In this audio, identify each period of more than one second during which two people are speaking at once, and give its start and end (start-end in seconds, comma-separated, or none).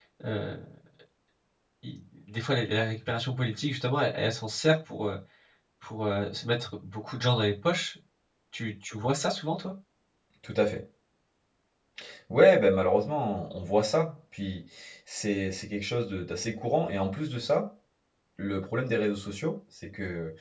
none